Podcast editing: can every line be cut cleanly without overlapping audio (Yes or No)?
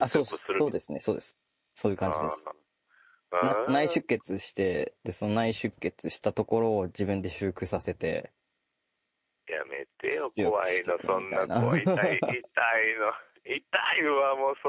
No